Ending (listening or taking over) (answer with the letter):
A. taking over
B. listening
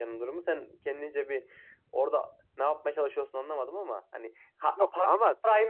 B